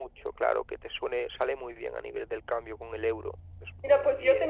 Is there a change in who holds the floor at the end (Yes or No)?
Yes